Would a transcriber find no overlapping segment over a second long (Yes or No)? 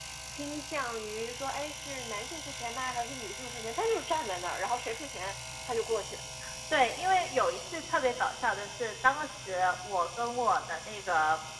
Yes